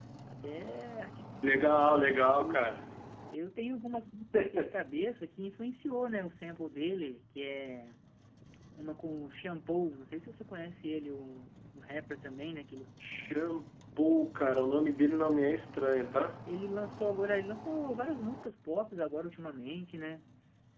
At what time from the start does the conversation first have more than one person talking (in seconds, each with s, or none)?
1.4 s